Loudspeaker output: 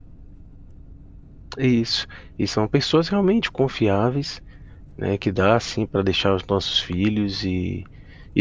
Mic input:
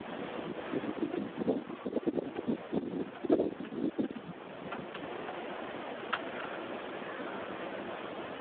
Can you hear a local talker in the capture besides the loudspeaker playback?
No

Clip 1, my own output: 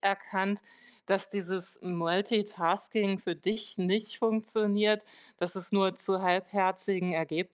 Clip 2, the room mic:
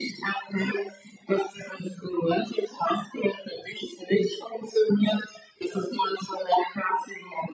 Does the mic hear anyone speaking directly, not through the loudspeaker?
No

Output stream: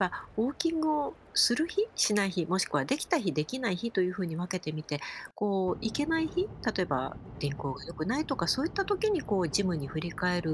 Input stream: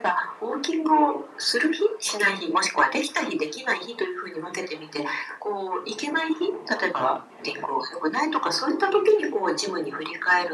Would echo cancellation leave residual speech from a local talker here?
No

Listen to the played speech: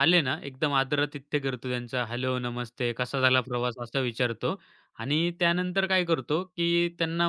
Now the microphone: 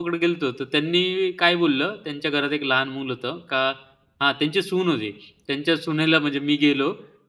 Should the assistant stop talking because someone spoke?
Yes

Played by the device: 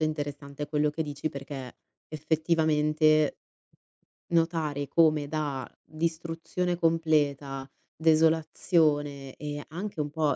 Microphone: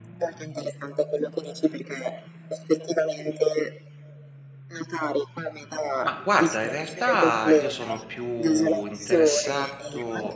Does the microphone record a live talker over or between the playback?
Yes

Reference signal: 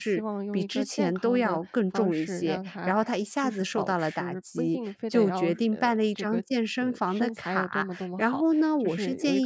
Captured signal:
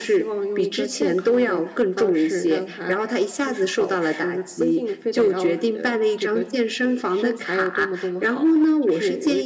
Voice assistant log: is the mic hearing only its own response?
Yes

